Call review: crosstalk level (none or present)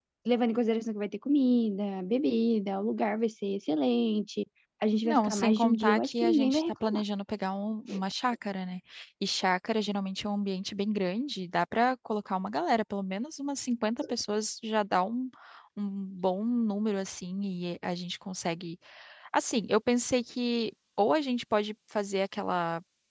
present